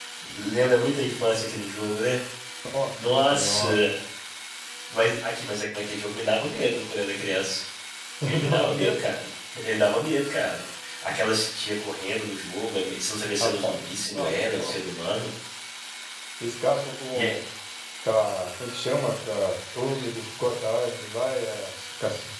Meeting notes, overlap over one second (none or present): present